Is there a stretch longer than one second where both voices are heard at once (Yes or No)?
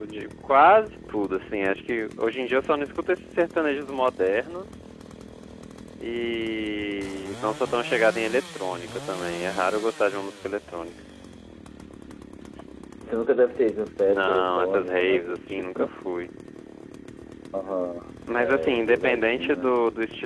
Yes